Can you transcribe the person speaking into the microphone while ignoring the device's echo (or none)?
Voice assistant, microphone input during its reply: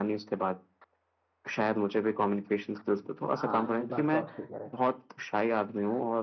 हाँ ये बात तो आप सही कह रहे